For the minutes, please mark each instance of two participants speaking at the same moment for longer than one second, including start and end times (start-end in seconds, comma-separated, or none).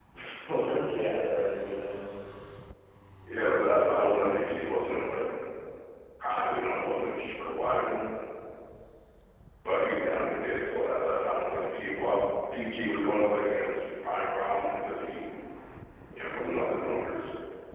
none